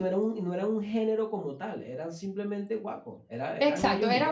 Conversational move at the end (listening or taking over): taking over